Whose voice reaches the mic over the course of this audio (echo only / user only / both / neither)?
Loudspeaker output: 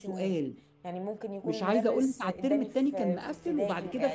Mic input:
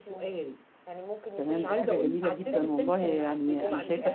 both